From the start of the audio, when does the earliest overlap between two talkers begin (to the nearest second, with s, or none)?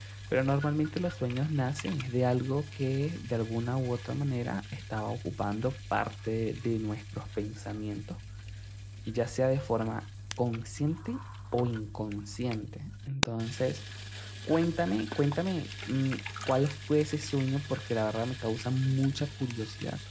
none